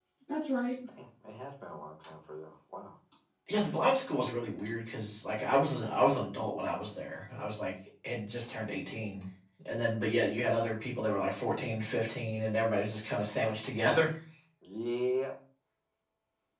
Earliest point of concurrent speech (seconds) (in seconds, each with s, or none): none